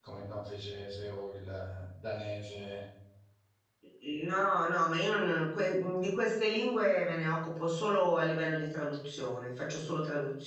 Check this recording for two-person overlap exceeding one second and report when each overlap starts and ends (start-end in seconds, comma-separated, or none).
none